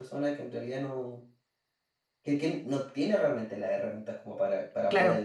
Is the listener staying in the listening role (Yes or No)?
Yes